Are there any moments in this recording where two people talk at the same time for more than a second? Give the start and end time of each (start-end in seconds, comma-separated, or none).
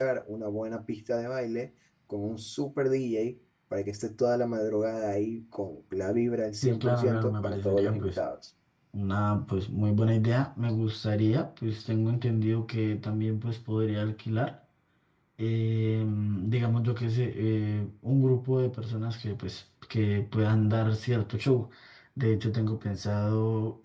6.6-8.2